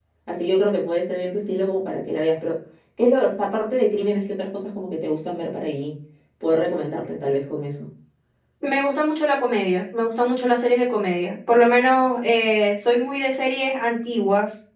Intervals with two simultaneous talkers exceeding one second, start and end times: none

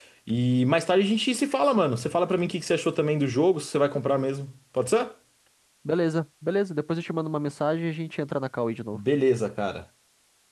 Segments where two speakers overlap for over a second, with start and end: none

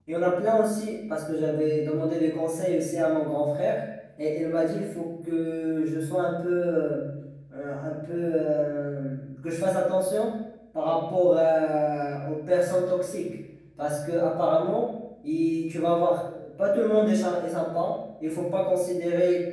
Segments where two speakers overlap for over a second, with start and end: none

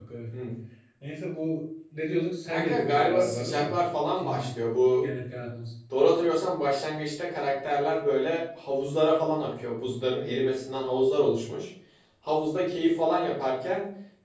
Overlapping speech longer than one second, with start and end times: 2.5-3.7

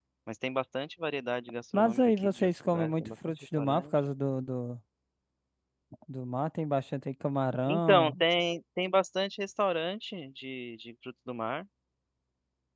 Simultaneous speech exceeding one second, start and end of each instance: 1.7-4.0

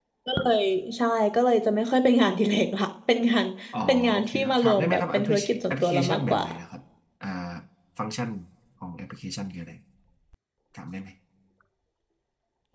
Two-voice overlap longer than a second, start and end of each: 4.1-6.4

